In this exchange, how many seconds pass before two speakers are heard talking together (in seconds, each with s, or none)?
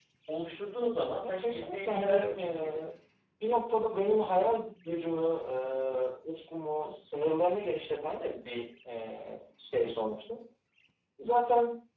1.2 s